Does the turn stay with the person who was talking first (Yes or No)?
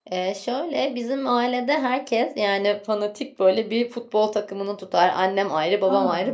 Yes